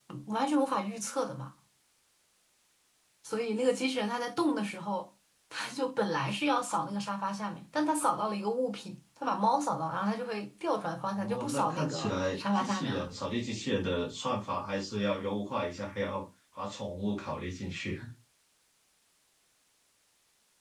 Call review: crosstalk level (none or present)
present